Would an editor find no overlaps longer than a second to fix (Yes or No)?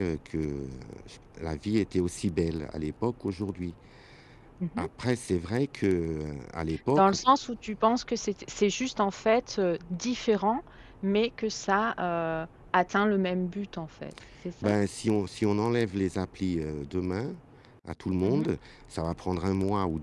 Yes